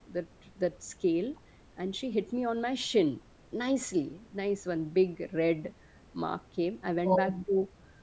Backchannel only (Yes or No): Yes